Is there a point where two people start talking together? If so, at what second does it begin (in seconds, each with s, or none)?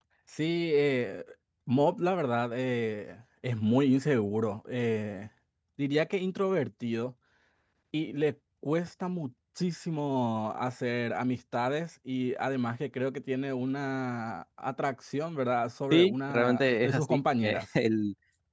15.9 s